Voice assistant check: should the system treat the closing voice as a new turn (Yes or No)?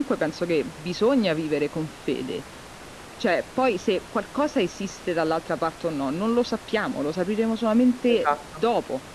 No